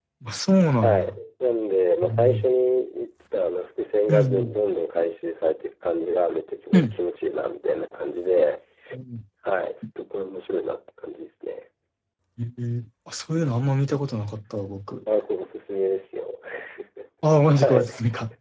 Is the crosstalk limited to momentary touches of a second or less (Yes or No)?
Yes